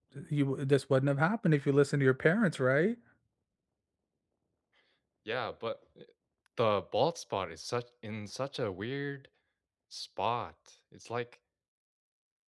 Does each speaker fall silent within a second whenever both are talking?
Yes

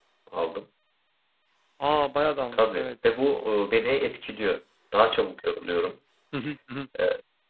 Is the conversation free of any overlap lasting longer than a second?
Yes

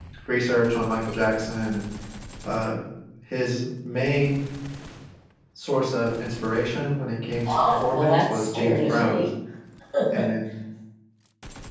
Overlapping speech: Yes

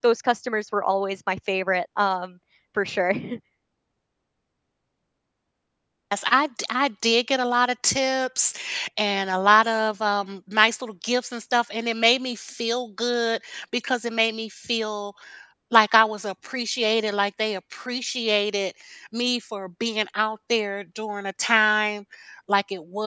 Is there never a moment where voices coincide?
Yes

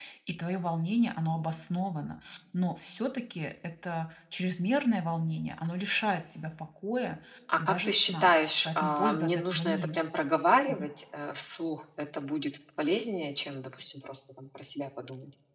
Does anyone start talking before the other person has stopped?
Yes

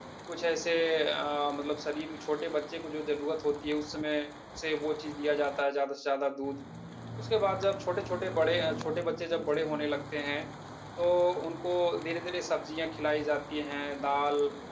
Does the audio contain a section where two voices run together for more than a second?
Yes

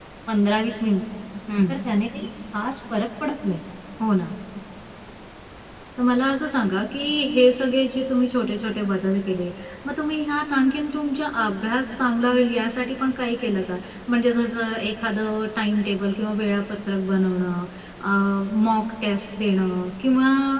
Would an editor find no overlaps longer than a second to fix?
Yes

